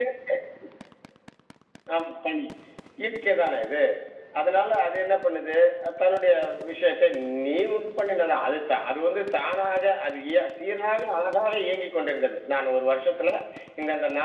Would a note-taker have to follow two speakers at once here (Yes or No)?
No